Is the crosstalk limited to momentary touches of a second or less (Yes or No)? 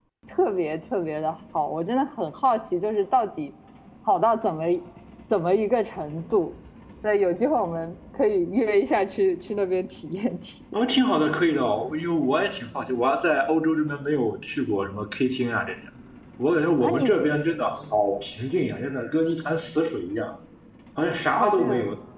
Yes